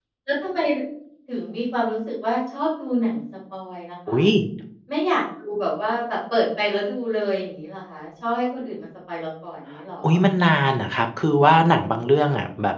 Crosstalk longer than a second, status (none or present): none